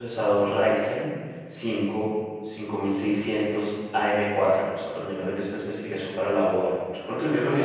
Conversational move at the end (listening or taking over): taking over